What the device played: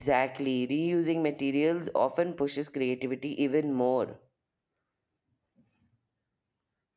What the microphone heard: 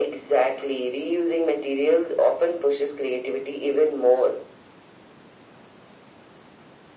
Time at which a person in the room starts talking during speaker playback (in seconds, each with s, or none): none